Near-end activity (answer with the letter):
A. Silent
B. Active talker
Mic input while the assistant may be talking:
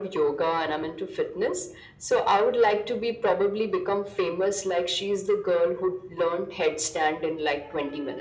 A